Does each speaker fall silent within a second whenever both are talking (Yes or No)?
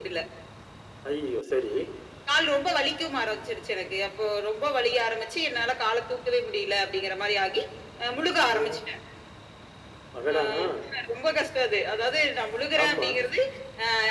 Yes